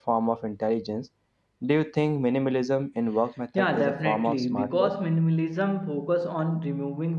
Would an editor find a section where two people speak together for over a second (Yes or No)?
Yes